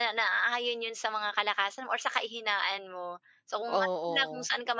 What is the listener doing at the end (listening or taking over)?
listening